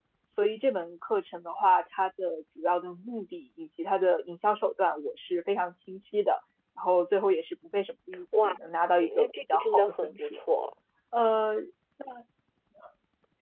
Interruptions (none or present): present